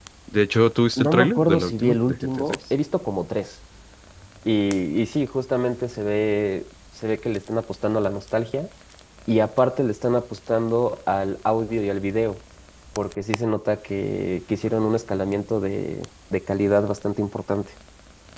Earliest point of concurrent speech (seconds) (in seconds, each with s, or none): 1.0 s